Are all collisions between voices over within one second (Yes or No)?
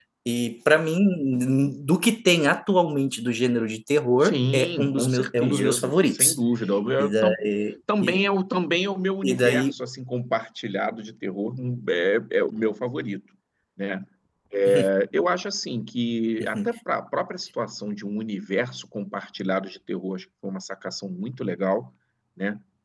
No